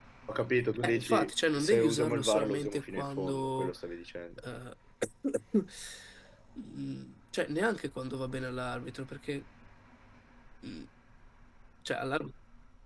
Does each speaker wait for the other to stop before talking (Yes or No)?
No